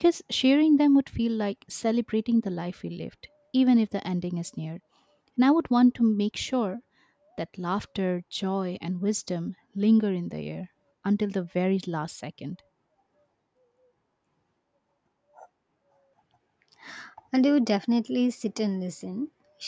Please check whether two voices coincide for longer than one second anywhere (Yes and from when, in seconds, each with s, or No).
No